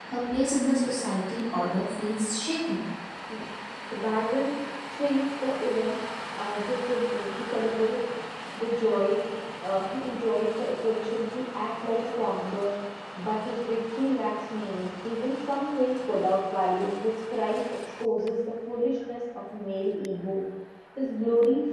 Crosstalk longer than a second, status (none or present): none